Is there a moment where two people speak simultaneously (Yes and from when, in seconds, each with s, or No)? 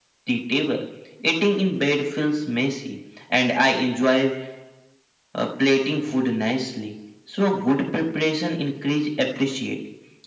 No